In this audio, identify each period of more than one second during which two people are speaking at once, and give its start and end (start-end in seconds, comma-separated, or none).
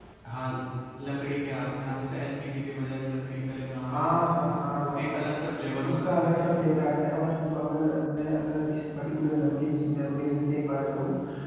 3.8-5.2